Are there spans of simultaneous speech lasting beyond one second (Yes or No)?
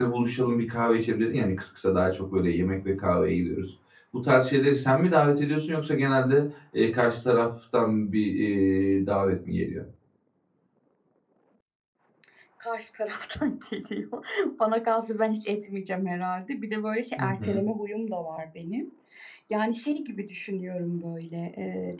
No